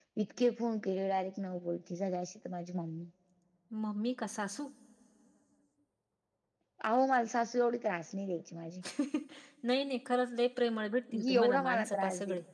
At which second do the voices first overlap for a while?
11.1 s

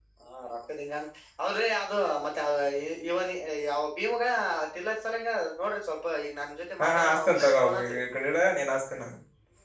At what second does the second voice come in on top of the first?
6.8 s

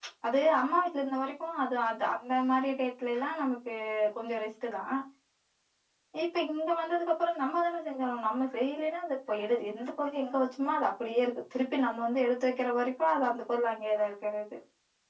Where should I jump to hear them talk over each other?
none

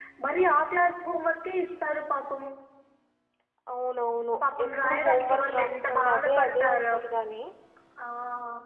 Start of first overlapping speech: 4.4 s

